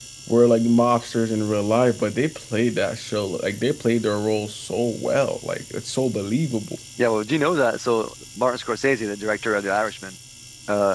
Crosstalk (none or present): none